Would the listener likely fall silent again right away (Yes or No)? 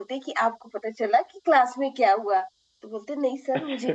Yes